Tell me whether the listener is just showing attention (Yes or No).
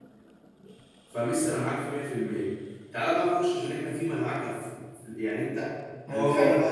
No